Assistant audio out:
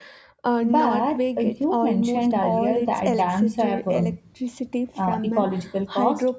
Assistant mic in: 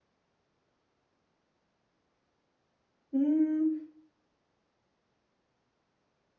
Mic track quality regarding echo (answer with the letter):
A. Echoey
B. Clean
B